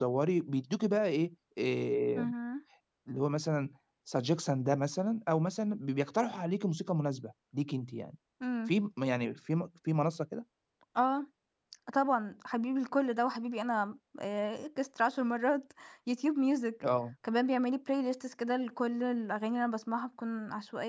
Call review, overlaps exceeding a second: none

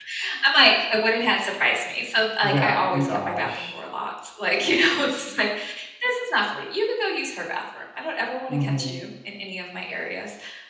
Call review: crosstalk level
present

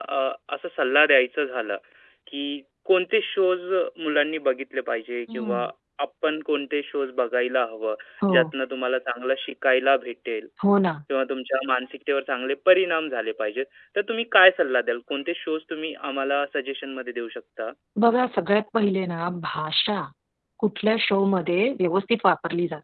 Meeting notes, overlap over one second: none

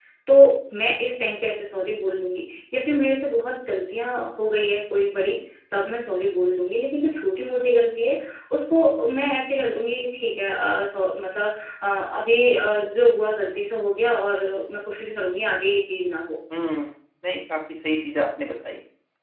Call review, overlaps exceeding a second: none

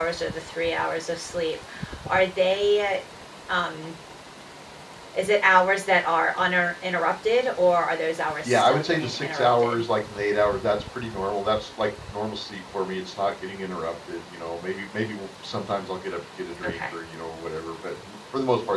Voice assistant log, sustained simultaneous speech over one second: present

